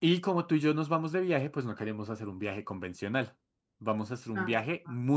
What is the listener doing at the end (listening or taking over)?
listening